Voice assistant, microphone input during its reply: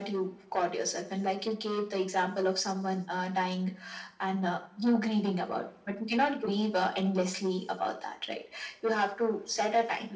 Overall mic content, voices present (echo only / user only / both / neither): echo only